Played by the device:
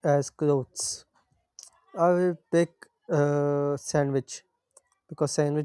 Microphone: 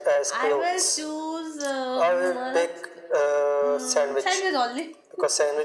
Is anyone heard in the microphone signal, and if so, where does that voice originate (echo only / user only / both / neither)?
both